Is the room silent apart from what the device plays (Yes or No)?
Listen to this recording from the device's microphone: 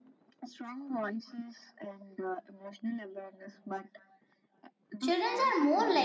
No